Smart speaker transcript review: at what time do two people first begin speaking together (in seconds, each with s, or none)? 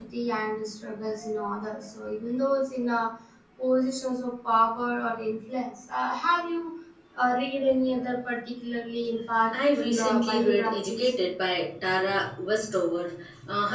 9.5 s